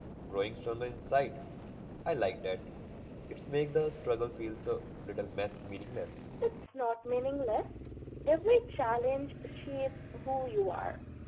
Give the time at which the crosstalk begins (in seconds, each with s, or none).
none